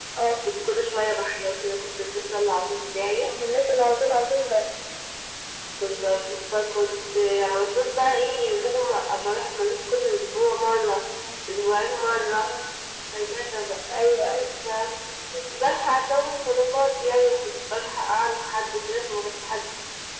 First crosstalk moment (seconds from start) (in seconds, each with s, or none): none